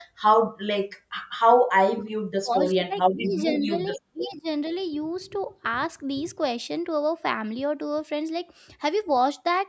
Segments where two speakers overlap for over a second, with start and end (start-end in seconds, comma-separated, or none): 2.5-4.3